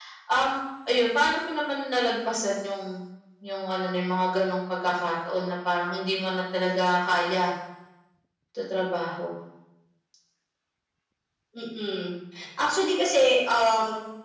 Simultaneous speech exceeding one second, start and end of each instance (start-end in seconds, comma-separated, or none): none